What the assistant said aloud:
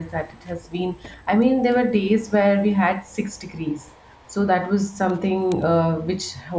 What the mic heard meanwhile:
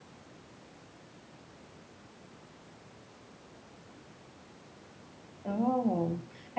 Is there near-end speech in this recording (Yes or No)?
Yes